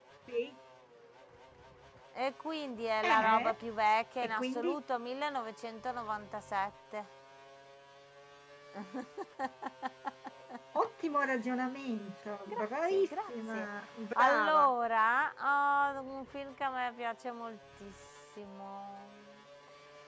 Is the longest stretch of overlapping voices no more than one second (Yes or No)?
No